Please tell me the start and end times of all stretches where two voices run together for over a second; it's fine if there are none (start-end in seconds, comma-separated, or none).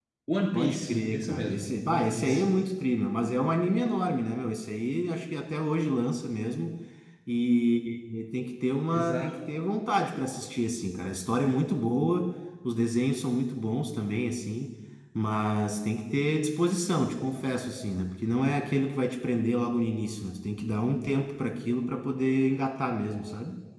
0.5-2.5